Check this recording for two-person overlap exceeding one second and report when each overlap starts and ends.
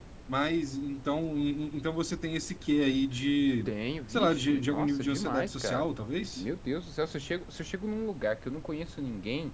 4.1-5.9

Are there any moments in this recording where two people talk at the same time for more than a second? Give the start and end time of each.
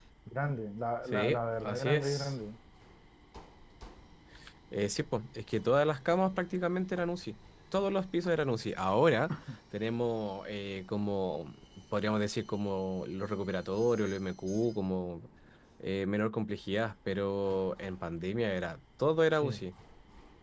1.1-2.3

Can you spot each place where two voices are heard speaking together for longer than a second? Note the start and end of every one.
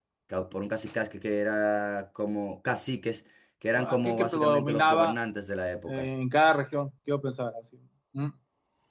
3.8-5.2

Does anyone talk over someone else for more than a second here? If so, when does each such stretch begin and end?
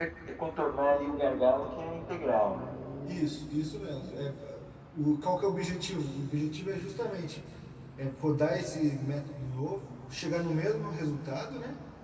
none

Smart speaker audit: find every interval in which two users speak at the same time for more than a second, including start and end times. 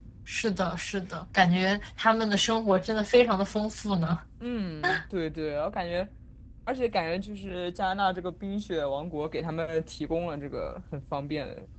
none

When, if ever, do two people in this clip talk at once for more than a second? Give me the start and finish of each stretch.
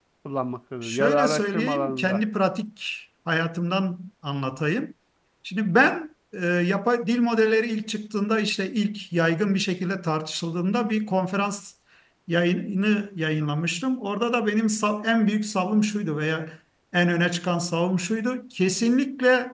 0.8-2.2

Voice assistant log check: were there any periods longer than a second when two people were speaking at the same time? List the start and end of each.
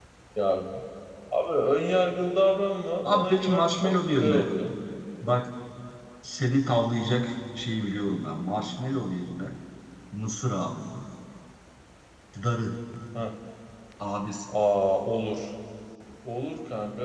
3.0-4.5

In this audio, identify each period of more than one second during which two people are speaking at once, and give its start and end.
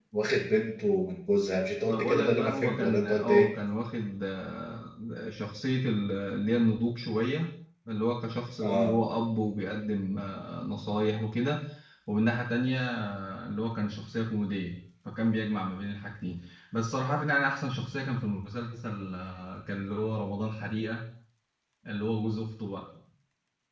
1.8-3.5

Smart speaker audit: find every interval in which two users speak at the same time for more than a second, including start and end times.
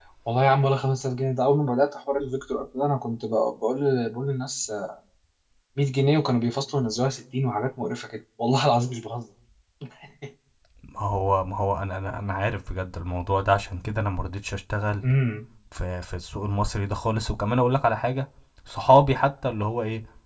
none

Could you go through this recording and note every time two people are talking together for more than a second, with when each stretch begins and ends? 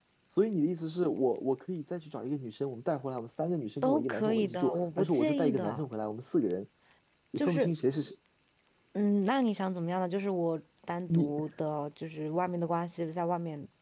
3.8-5.8

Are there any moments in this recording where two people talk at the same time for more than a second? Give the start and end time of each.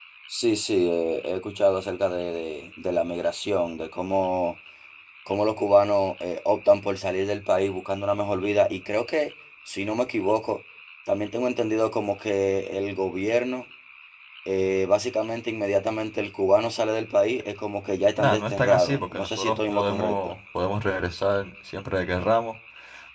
18.2-20.2

